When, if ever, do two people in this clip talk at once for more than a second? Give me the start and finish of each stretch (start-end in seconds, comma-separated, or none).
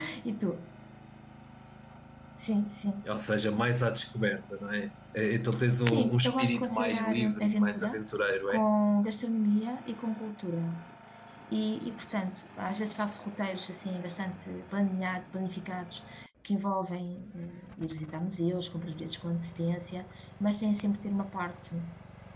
5.9-8.0